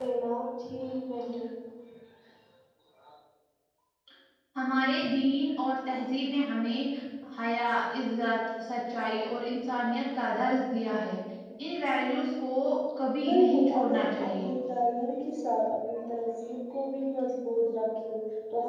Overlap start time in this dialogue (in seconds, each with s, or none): 13.3 s